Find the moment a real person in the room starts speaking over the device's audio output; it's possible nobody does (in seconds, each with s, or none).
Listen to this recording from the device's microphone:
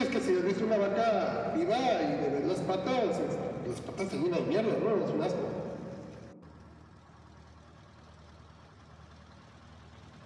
none